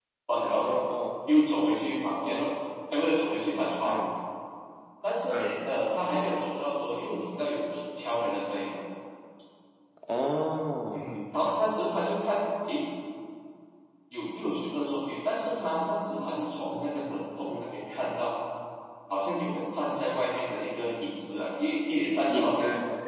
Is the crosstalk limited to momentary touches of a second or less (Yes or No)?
Yes